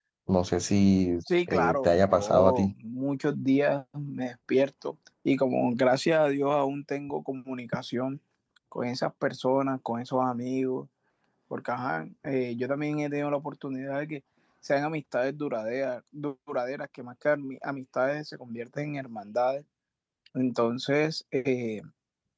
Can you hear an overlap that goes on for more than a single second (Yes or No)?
Yes